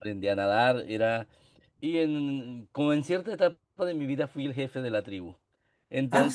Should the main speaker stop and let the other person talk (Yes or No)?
No